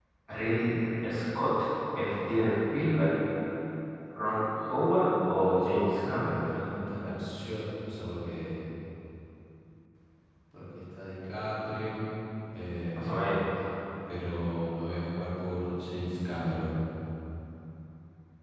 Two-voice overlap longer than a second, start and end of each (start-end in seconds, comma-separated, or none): none